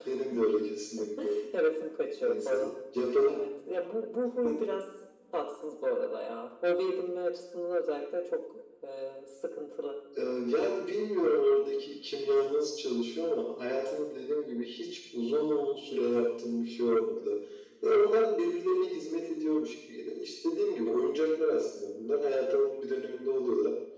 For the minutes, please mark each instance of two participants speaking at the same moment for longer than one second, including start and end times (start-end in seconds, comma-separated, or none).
none